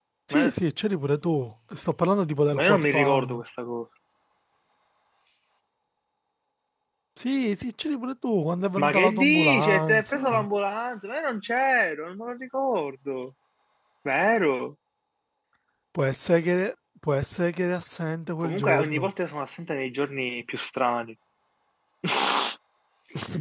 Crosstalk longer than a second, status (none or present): present